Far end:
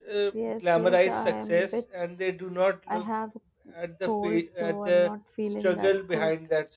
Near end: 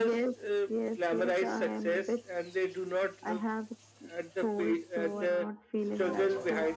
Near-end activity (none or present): present